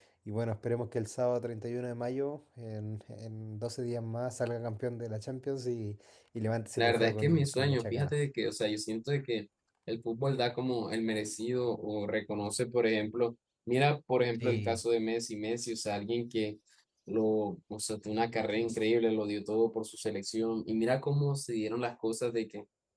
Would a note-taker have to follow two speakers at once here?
Yes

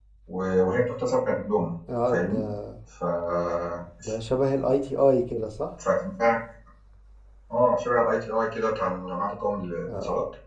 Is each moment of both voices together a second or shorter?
Yes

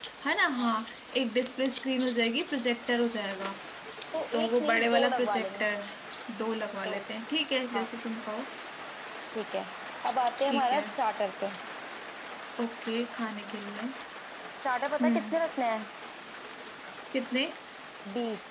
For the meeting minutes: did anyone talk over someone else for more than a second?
Yes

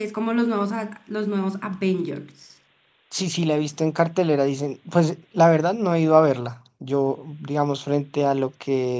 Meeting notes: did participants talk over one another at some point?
No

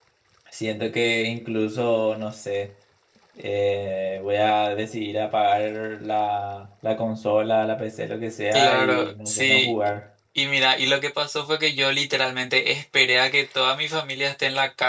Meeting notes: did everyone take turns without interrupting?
No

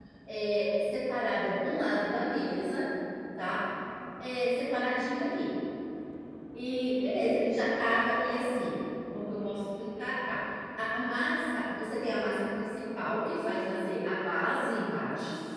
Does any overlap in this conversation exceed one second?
No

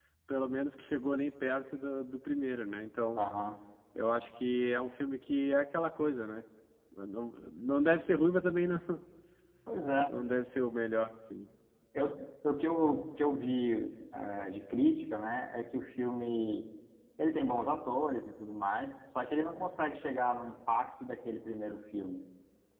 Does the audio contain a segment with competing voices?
No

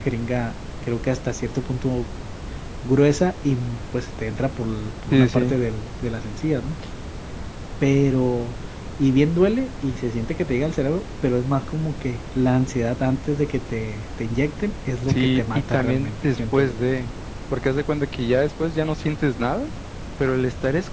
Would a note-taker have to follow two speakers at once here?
Yes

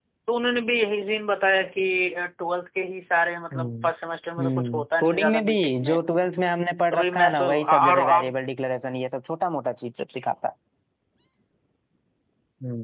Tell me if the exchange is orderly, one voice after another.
No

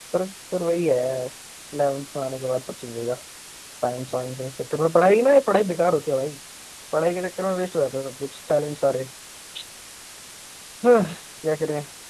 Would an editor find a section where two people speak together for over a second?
No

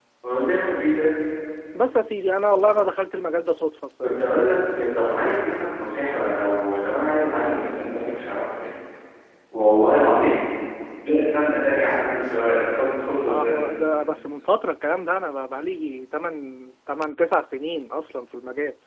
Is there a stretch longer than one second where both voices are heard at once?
No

